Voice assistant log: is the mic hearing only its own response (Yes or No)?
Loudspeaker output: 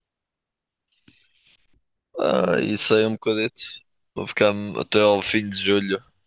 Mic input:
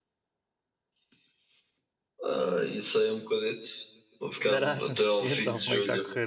No